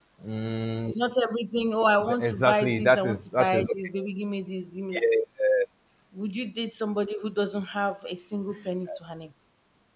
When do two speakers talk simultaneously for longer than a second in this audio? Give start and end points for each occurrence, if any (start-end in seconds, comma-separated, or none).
2.1-3.7